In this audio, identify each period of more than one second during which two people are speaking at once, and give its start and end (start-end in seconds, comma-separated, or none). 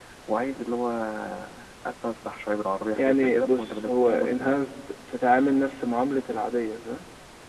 3.0-4.7